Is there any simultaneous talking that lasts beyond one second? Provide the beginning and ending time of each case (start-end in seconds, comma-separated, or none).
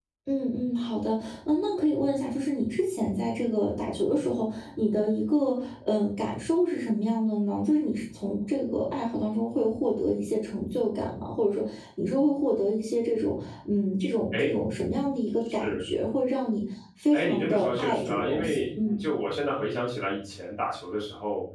17.1-19.0